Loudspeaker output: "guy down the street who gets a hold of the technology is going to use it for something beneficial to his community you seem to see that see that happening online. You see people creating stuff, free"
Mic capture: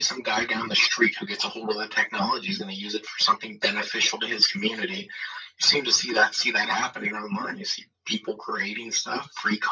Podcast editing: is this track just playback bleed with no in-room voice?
Yes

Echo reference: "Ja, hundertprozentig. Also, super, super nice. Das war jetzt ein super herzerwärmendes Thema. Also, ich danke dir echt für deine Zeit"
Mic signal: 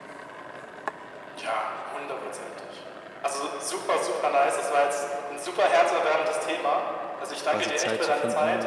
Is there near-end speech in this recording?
Yes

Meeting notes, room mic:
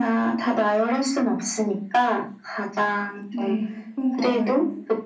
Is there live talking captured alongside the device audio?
Yes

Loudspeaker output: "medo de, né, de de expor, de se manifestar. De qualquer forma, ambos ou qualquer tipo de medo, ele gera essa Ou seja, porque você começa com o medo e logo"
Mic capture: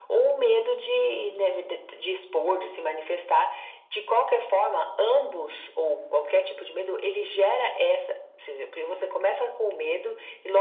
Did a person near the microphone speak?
No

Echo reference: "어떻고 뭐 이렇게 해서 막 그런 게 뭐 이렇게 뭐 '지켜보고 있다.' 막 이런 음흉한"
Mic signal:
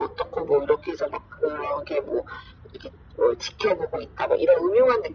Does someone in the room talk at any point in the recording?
No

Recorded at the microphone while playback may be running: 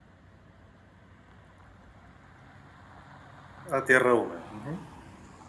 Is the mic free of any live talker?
No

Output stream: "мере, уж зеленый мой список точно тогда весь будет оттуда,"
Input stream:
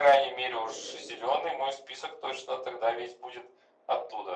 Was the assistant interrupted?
Yes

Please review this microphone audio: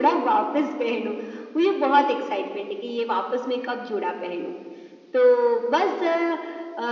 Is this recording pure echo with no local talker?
Yes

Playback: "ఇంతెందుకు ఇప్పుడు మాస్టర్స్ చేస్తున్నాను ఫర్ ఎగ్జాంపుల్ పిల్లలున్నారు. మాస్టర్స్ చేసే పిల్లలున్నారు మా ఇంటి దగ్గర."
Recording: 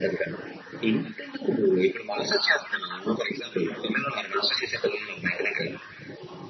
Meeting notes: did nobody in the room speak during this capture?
Yes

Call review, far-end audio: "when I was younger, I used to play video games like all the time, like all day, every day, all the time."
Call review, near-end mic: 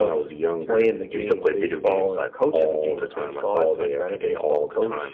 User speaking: Yes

